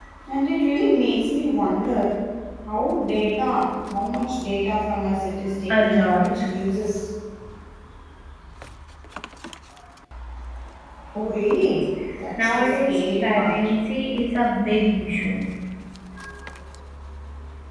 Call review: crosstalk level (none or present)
present